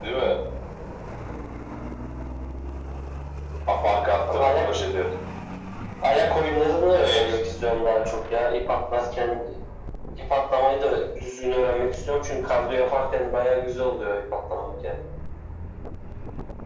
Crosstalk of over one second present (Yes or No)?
No